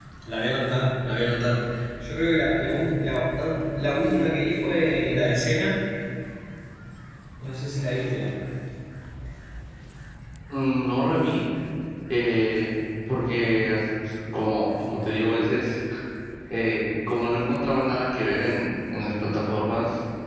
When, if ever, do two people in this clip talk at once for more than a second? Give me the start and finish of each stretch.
none

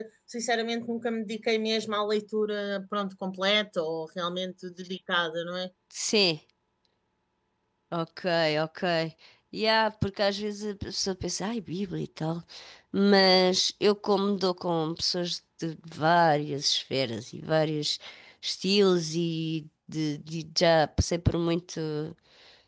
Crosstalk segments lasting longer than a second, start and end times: none

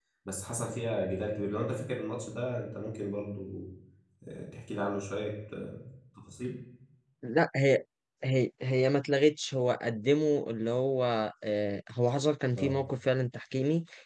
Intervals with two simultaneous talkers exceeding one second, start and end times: none

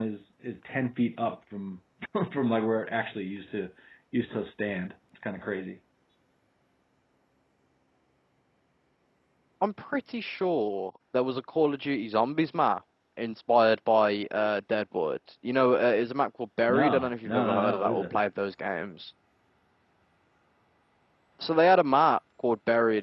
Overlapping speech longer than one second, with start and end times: 16.7-18.0

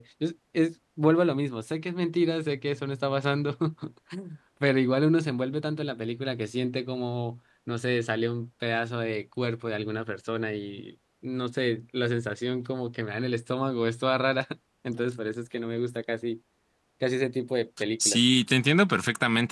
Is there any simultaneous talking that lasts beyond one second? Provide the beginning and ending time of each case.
none

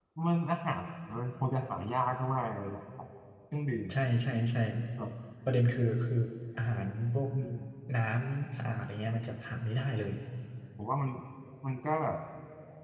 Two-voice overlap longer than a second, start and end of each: none

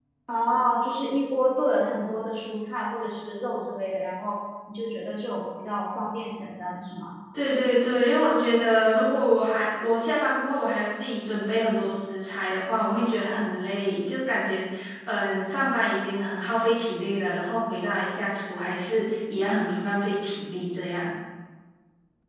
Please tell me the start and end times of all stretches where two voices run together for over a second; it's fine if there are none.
none

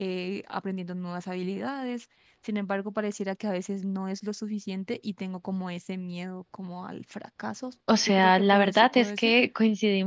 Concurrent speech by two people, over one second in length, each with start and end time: 8.1-9.3

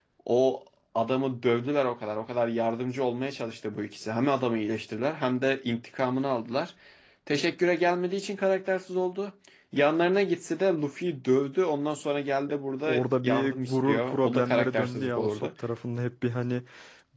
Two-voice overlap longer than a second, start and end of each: 12.9-15.5

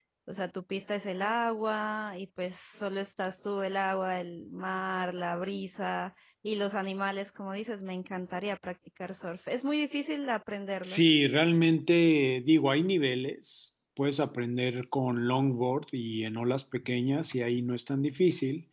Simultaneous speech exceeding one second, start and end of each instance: none

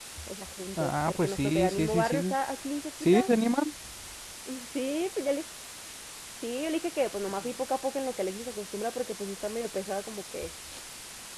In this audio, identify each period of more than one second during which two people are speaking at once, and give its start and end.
0.8-2.3

